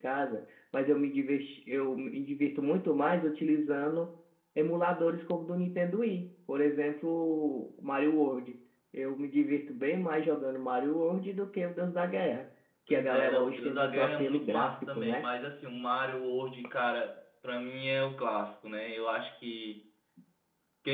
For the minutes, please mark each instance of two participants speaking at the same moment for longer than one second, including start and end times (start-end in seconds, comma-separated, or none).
12.9-15.2